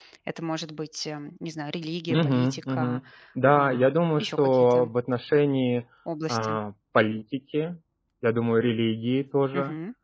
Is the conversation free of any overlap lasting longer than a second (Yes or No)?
No